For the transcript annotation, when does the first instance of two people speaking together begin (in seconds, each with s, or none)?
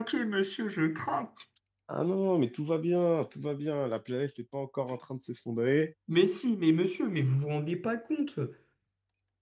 none